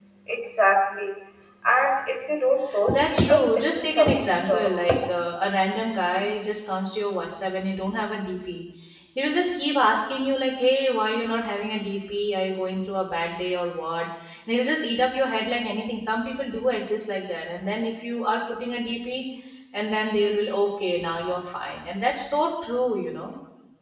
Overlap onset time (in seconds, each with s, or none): 2.9 s